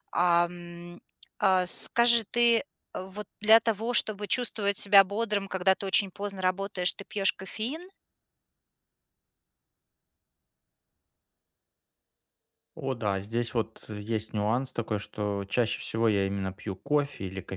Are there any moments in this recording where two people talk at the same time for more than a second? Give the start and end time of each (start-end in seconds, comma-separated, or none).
none